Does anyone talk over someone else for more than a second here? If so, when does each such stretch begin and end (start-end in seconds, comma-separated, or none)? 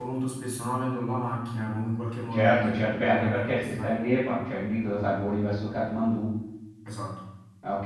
2.3-4.0